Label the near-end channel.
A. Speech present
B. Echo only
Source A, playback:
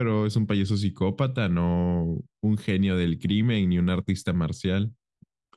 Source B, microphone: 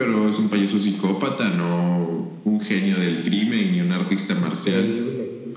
A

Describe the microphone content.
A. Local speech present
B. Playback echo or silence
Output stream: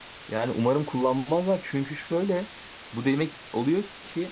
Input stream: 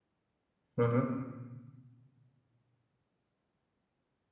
A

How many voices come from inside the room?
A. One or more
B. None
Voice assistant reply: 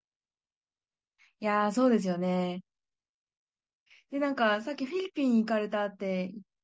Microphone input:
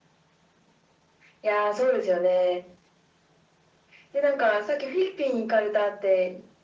B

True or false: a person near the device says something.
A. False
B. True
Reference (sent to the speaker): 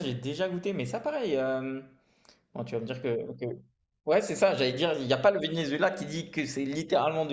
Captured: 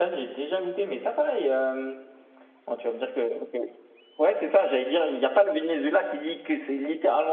A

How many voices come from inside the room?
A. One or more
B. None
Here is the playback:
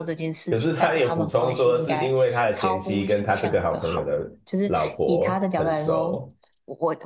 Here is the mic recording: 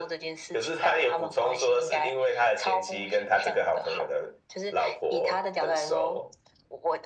B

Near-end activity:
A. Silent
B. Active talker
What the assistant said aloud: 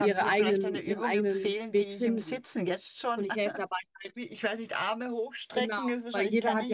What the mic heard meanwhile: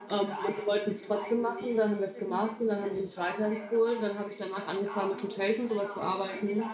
B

